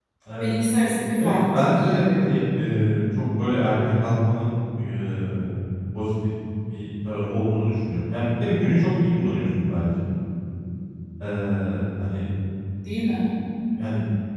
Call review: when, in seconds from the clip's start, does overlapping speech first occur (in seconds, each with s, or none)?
1.1 s